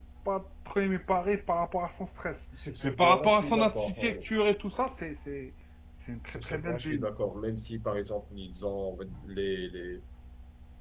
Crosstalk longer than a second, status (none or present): present